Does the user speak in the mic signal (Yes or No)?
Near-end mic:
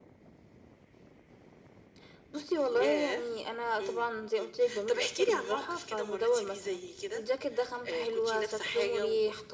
No